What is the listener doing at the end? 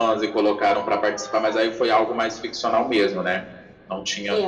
taking over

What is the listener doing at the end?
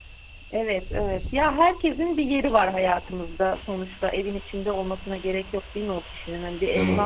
listening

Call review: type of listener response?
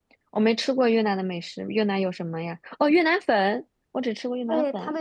taking over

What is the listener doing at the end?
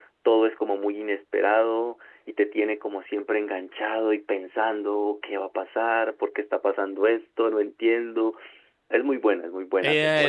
taking over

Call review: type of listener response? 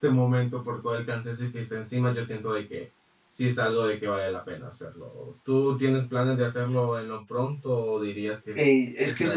taking over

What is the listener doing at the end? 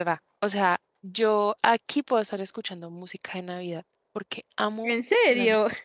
listening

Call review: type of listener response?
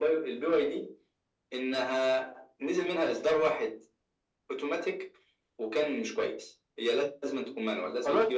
taking over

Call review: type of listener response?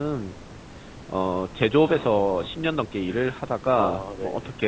listening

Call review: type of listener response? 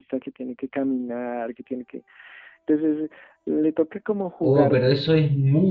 taking over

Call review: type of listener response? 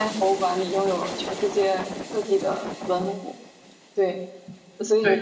listening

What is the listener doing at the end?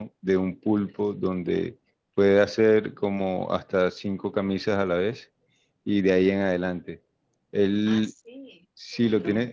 listening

